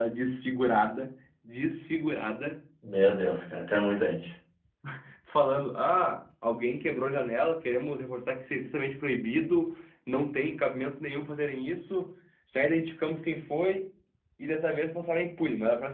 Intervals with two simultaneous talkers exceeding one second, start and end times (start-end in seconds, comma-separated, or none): none